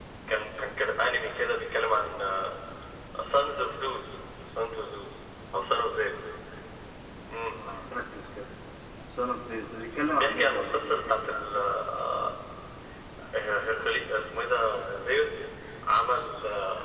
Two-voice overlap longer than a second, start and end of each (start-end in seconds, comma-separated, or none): 10.1-11.4